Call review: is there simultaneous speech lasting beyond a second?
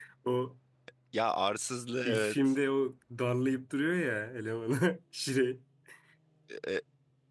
No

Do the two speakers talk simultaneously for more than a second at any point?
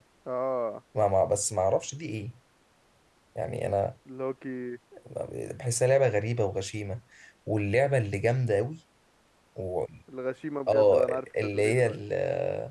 Yes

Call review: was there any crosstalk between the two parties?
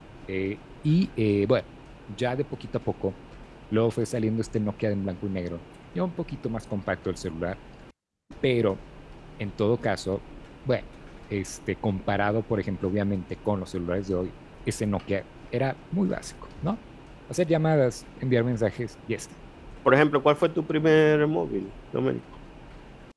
No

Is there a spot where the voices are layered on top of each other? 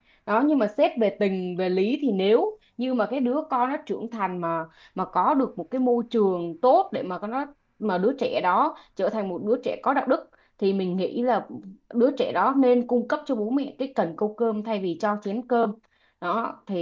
No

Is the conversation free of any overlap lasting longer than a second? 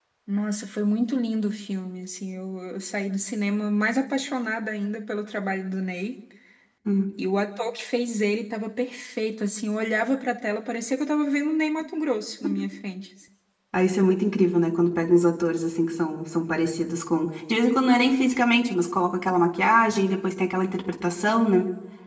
Yes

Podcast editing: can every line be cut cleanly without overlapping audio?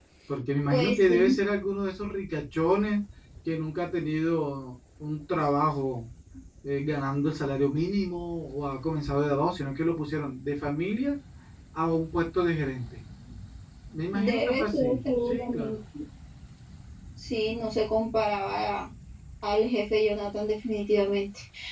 No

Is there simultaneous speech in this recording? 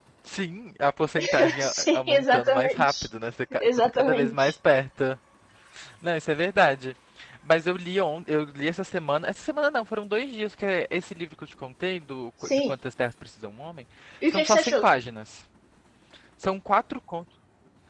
Yes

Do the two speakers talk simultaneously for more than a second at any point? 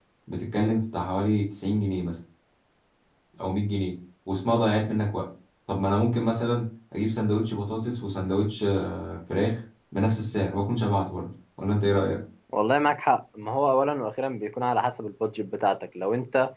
No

